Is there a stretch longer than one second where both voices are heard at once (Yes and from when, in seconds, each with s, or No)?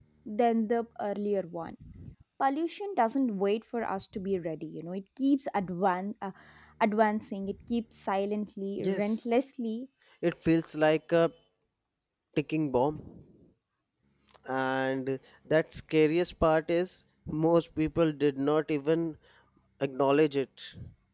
No